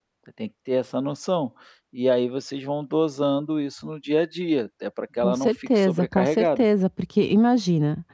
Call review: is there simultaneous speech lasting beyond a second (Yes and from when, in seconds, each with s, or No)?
Yes, from 5.2 s